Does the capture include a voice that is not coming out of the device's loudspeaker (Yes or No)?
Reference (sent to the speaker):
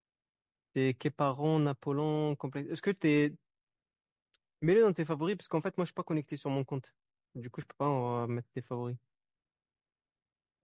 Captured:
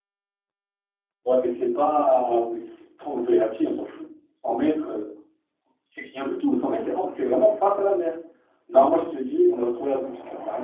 Yes